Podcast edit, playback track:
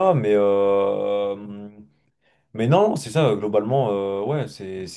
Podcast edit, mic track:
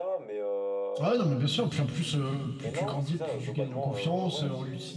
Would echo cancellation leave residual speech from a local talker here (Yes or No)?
Yes